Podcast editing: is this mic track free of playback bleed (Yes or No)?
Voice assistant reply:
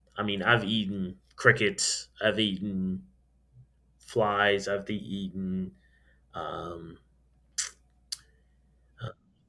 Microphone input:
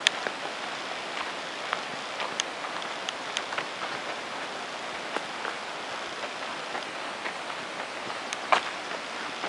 Yes